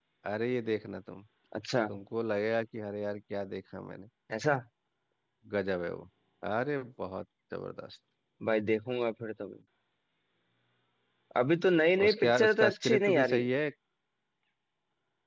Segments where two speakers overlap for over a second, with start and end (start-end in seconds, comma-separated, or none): 12.1-13.4